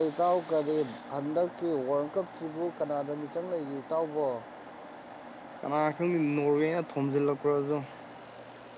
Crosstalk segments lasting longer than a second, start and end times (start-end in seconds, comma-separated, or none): none